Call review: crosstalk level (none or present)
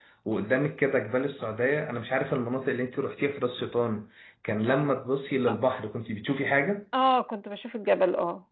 none